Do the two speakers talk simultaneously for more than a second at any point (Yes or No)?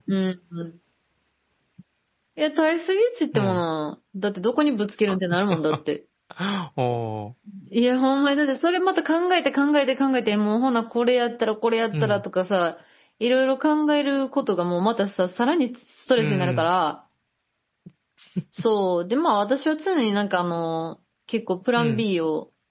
No